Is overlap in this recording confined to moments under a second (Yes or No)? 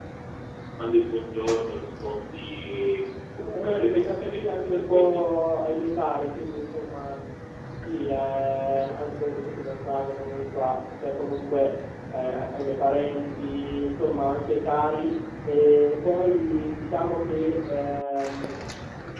No